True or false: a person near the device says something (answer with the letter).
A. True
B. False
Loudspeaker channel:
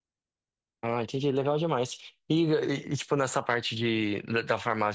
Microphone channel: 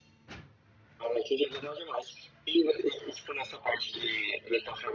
B